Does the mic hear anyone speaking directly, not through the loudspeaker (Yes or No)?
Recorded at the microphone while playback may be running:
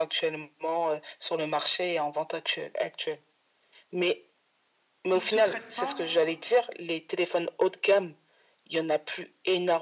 Yes